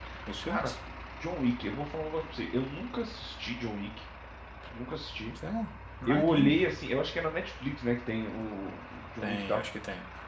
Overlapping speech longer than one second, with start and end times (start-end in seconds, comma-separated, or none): none